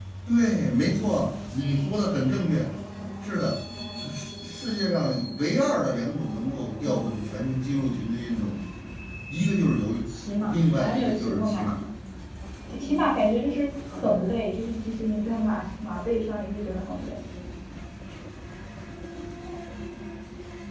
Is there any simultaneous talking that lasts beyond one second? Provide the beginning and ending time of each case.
10.5-11.8

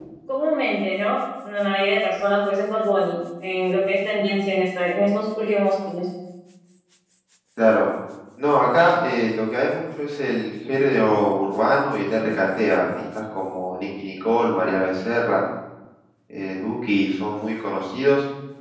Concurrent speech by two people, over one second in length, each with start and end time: none

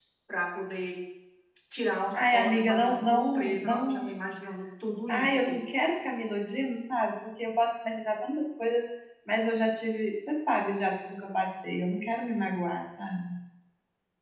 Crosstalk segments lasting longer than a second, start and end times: 2.1-4.0

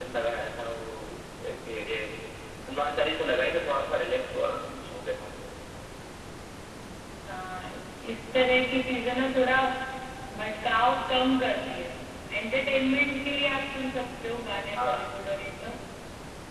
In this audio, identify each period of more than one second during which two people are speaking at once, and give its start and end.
none

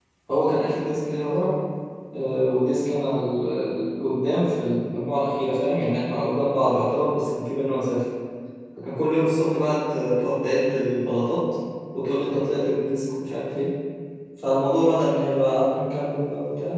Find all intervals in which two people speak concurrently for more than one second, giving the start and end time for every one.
none

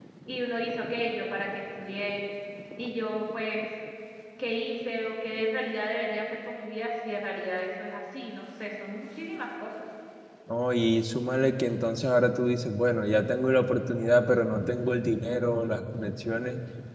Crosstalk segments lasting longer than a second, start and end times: none

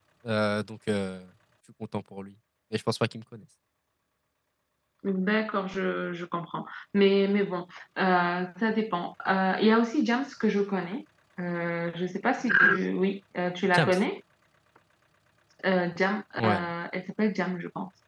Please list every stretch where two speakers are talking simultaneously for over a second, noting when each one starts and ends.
none

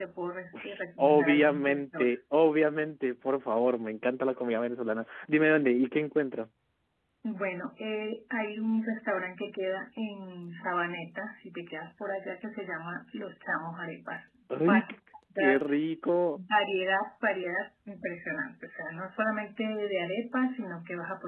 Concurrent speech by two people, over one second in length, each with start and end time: 0.6-2.1

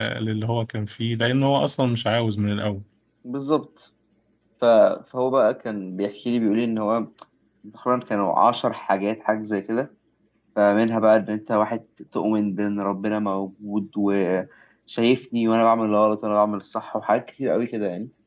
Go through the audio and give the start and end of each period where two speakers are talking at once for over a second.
none

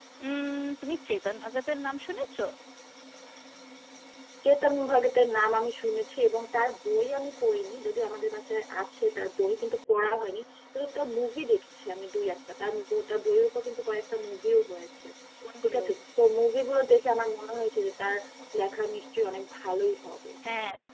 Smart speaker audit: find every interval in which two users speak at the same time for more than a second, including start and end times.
none

